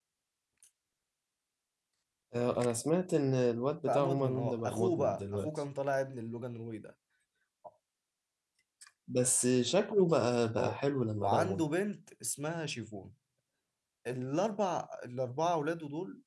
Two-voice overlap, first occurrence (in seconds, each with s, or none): 3.9 s